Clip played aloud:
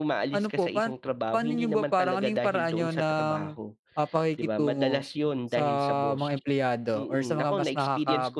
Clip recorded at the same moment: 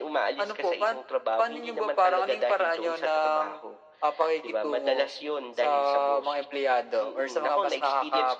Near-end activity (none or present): none